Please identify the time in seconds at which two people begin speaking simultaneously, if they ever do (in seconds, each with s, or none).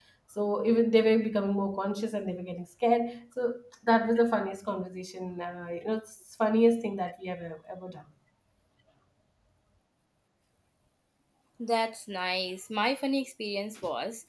none